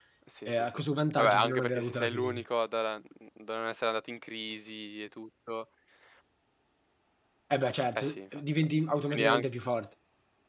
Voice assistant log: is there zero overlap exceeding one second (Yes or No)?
No